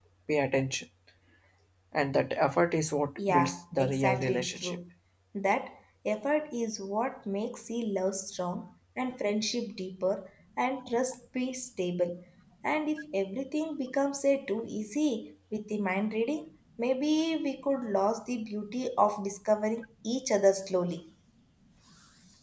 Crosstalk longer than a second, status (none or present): present